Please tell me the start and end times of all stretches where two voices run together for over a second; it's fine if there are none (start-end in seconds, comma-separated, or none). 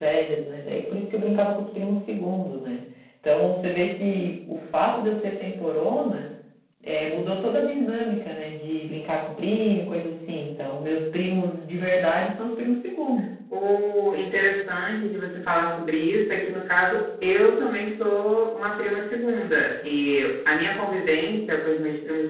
none